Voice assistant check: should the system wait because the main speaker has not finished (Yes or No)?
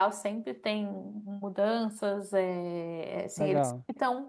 Yes